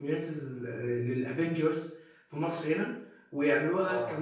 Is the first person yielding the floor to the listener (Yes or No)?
No